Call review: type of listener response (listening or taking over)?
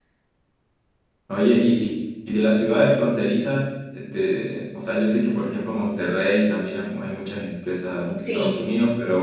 listening